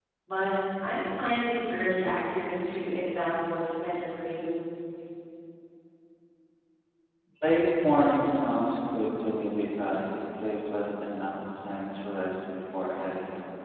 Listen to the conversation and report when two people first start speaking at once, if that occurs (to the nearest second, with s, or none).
none